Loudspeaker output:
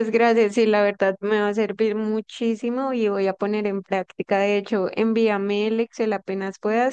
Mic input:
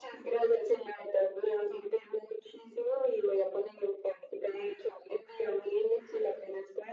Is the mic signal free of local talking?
Yes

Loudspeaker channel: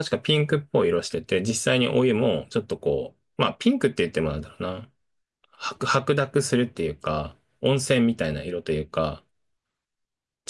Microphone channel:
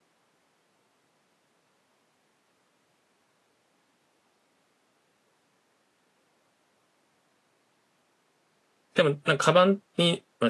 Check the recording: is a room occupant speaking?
Yes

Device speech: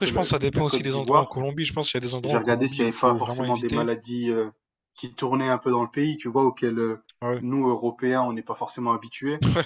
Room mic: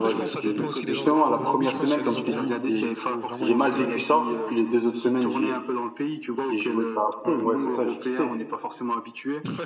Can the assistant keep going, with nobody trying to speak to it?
No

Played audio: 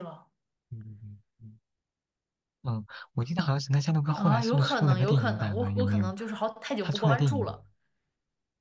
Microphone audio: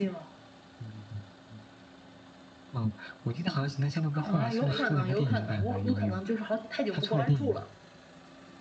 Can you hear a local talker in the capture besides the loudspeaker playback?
Yes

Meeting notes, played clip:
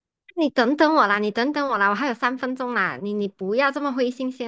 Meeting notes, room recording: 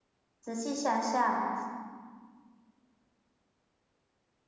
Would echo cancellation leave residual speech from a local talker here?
Yes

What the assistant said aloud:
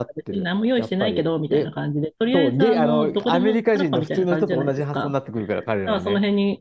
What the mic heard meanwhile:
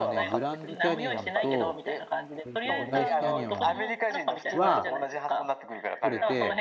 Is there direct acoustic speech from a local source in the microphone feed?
Yes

